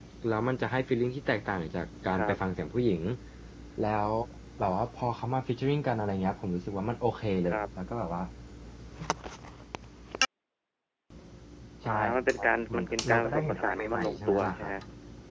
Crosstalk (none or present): present